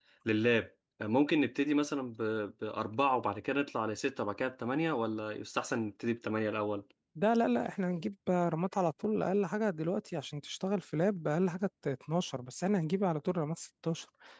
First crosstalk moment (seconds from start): none

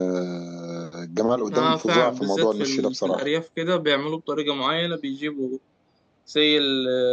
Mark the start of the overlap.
1.5 s

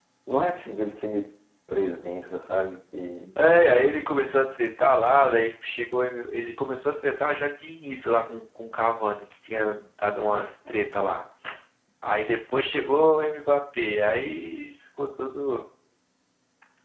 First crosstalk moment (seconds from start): none

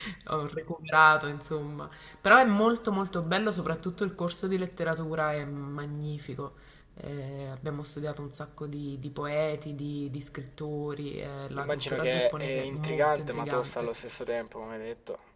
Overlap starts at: 11.5 s

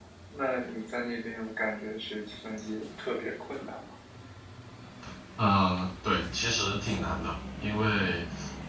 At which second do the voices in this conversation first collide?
none

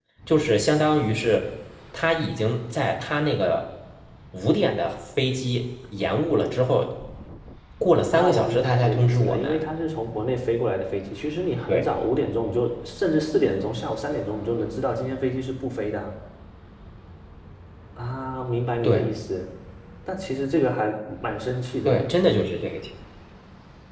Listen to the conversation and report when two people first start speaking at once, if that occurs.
8.1 s

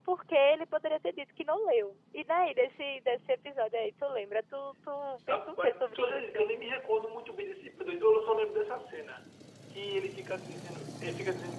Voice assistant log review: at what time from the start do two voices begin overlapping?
5.3 s

